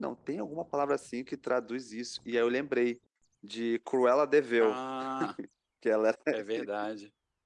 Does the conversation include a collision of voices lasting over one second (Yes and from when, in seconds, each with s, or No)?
No